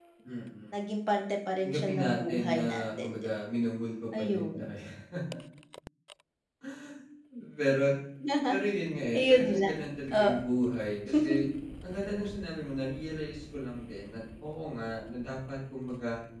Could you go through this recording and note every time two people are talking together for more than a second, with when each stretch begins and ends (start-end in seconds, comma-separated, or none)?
1.6-3.3